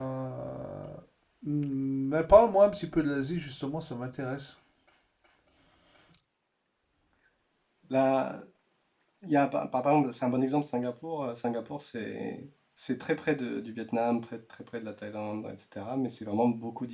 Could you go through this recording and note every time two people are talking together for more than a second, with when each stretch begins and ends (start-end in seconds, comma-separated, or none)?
none